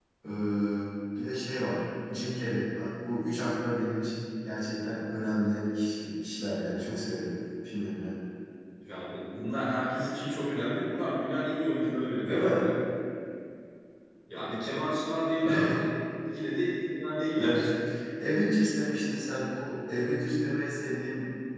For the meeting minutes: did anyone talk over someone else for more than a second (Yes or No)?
No